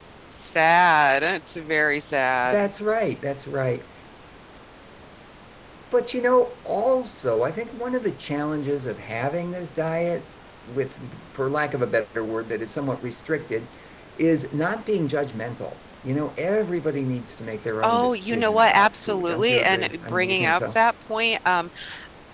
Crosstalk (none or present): present